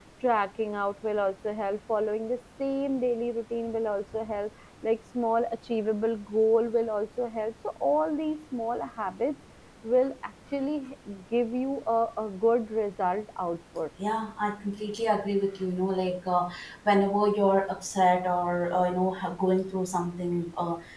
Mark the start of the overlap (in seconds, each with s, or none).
none